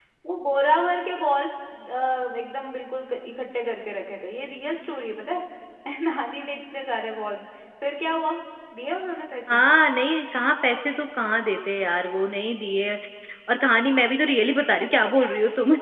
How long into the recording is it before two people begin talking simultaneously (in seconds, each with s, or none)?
none